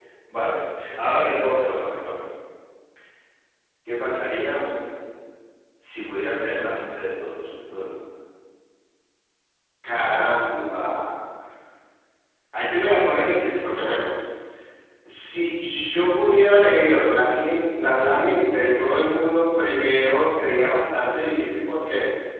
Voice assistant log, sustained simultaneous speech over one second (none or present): none